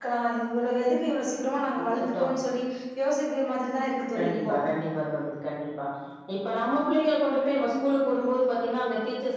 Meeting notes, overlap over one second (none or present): none